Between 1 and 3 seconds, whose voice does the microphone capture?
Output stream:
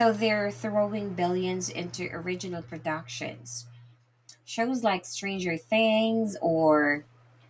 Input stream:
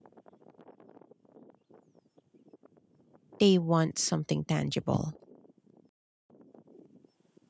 neither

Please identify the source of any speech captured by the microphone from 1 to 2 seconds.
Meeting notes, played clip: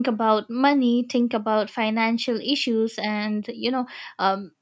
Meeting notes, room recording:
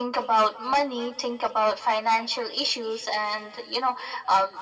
echo only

